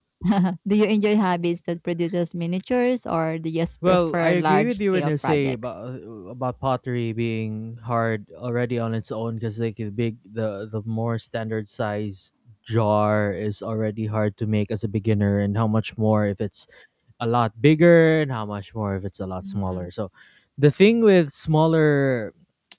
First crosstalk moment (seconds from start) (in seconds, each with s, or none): 3.9 s